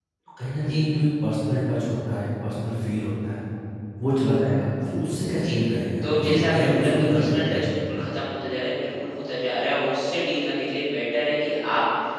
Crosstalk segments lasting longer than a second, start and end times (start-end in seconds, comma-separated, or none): 6.0-7.8